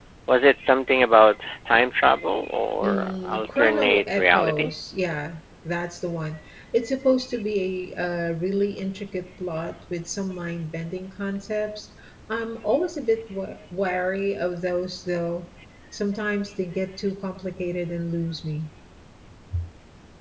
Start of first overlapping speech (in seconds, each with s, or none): 2.8 s